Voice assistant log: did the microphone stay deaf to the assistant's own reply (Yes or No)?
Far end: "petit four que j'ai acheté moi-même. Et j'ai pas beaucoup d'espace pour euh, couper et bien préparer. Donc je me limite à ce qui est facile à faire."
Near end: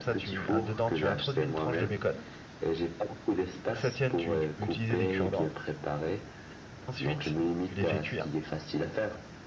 No